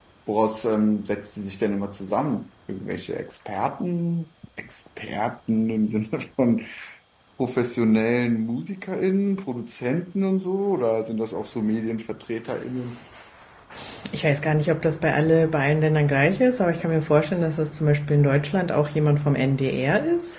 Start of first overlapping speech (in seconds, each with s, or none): none